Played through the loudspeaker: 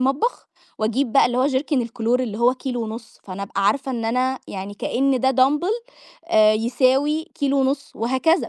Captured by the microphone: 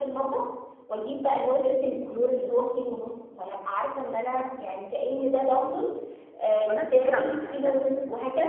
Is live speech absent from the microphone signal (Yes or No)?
No